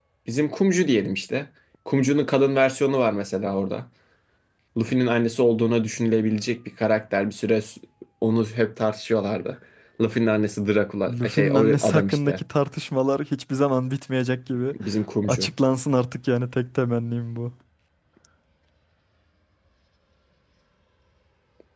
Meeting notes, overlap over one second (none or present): present